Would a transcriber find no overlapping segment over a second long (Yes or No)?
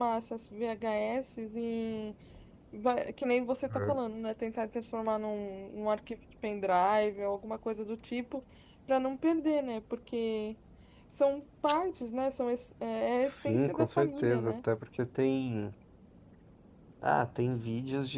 No